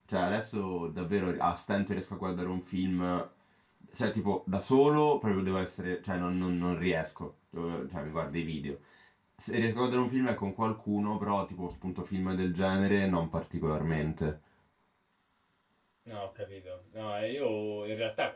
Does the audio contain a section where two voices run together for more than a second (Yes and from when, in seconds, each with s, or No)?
No